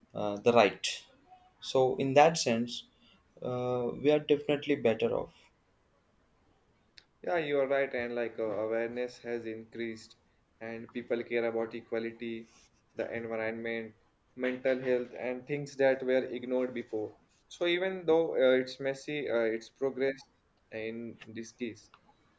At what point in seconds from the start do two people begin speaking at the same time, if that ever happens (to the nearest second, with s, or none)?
none